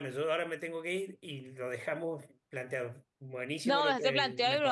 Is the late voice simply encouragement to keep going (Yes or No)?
No